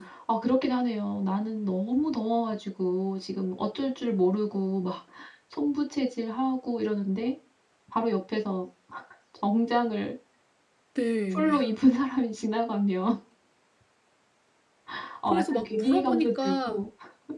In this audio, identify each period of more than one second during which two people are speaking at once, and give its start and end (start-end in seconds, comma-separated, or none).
15.3-16.8